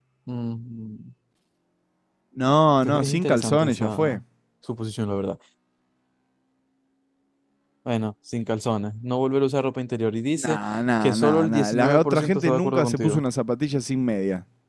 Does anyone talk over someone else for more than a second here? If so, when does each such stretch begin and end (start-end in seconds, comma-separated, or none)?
2.8-4.2, 11.0-13.2